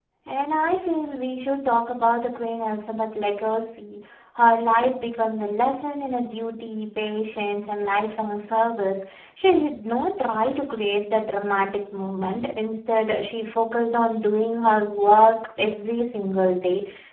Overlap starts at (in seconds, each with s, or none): none